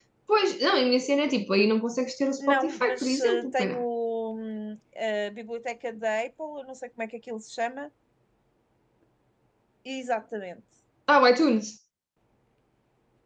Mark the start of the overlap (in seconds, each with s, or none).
2.4 s